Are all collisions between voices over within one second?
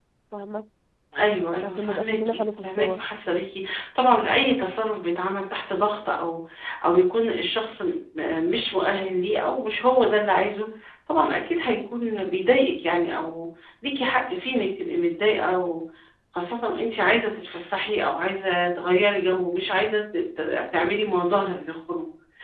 No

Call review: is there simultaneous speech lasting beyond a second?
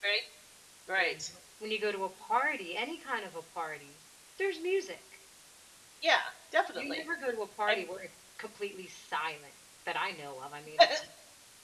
No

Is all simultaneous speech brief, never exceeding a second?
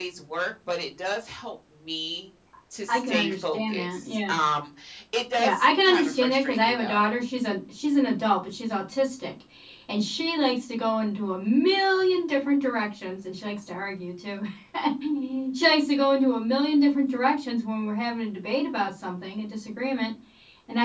No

